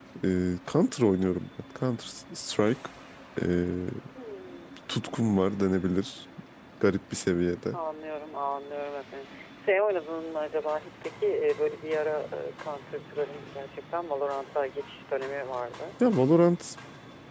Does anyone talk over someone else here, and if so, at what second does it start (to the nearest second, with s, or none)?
none